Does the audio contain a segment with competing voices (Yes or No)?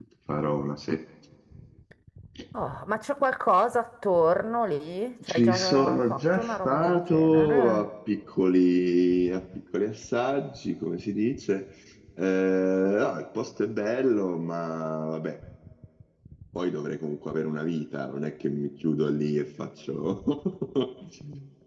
Yes